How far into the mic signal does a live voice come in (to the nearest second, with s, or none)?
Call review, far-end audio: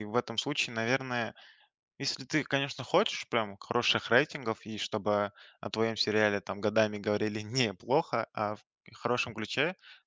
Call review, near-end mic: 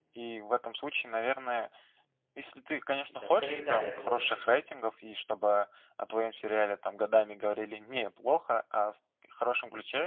3 s